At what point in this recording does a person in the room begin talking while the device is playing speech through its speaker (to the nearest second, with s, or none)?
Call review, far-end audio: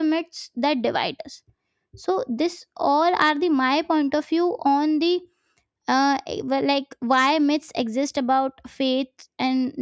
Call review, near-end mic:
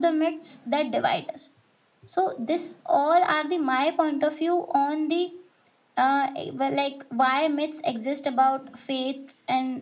none